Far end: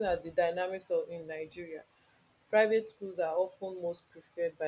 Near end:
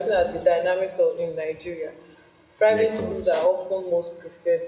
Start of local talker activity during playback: 2.7 s

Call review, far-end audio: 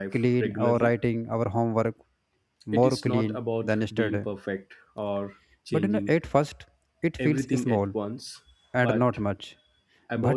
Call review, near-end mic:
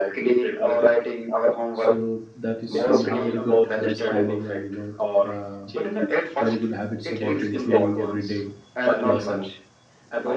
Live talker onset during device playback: 1.7 s

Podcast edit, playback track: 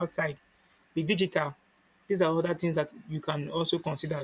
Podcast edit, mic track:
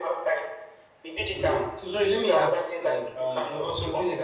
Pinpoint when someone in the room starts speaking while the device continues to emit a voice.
1.2 s

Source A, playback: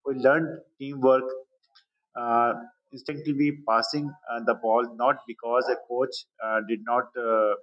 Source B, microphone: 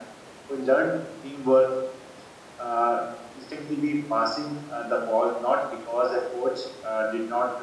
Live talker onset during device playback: none

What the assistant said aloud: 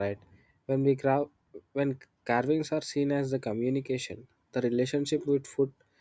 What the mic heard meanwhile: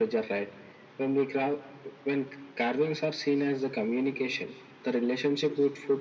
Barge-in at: none

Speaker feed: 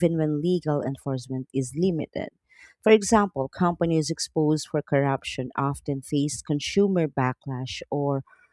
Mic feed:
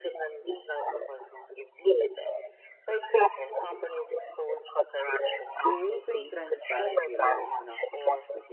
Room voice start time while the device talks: 5.6 s

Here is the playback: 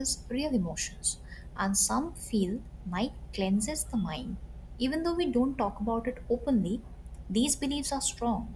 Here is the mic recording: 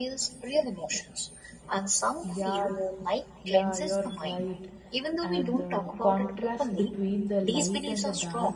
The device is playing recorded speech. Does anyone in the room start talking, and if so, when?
2.2 s

